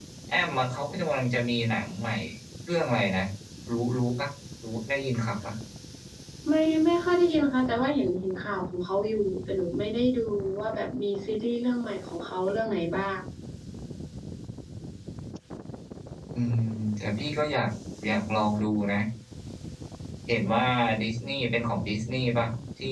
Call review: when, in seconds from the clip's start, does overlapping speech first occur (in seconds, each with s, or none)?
none